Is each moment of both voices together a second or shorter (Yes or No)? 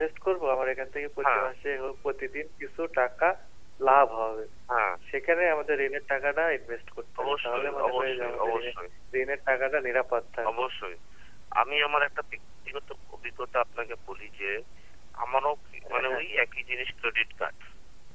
No